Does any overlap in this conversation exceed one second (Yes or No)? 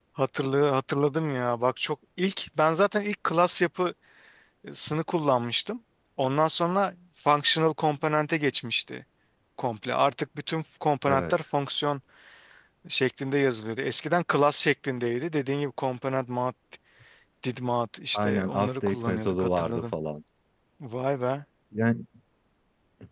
Yes